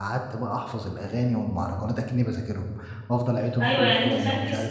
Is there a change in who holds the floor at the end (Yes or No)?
Yes